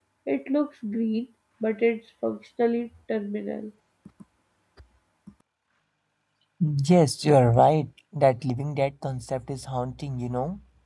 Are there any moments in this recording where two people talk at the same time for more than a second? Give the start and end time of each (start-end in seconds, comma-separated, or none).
none